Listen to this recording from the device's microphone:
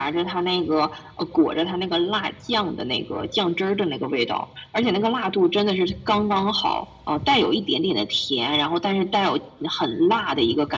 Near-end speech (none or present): none